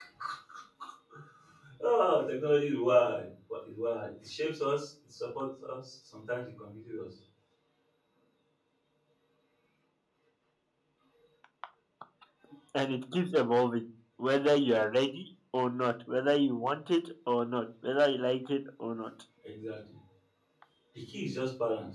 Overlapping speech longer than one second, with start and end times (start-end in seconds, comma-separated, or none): none